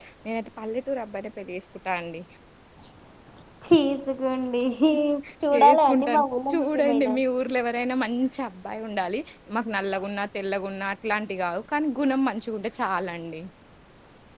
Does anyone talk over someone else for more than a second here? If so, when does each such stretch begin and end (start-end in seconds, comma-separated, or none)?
5.5-7.2